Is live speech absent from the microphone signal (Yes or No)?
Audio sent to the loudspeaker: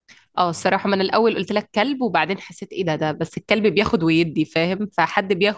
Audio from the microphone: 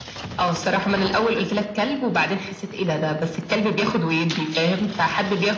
Yes